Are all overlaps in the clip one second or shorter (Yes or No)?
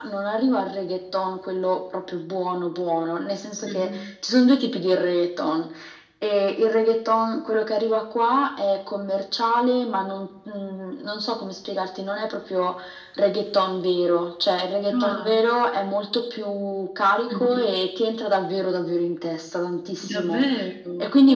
Yes